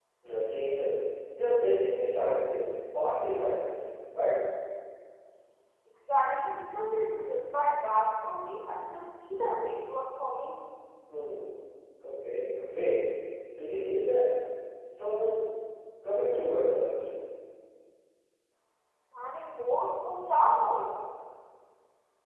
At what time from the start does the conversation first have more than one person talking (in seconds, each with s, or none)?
none